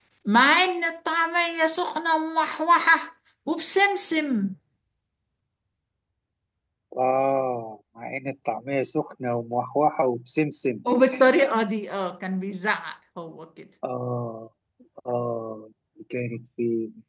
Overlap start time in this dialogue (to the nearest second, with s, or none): none